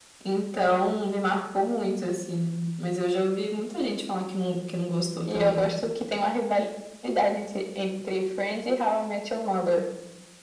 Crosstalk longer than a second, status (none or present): none